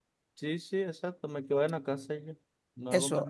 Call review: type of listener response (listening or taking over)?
taking over